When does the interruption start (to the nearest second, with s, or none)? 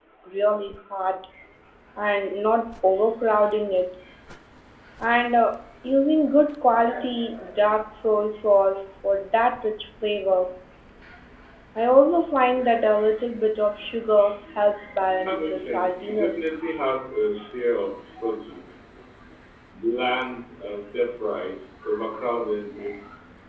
15 s